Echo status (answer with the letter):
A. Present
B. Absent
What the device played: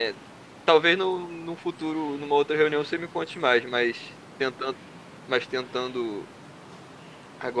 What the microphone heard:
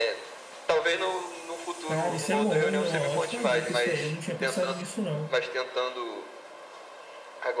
A